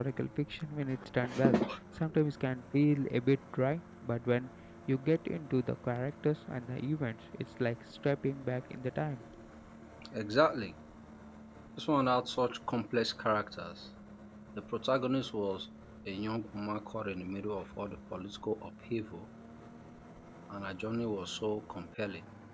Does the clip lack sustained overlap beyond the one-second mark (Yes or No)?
Yes